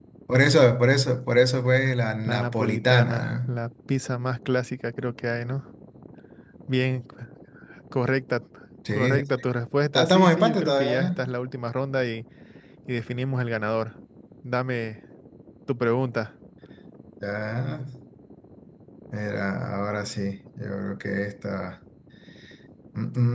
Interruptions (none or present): present